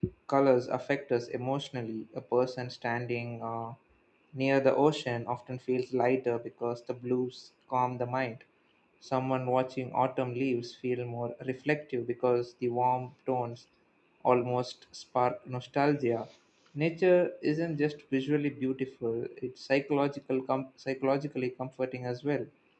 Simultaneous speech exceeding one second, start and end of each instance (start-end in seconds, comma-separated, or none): none